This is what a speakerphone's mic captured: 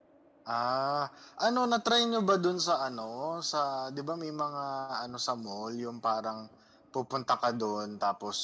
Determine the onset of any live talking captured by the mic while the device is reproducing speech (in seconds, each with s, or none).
none